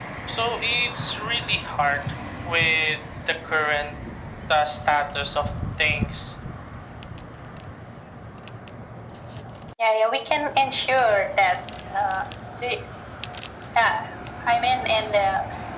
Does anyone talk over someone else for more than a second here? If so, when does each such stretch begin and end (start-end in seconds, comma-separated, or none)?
none